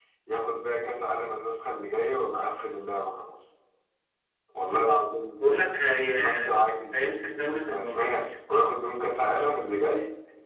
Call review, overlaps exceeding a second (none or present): none